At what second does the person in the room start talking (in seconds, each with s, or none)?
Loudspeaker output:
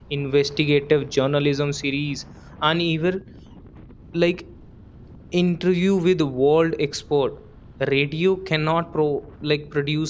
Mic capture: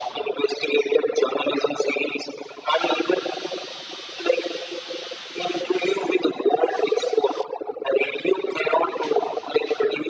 none